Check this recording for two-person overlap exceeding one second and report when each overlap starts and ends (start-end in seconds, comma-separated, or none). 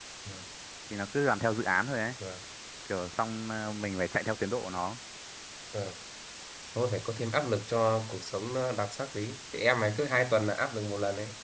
none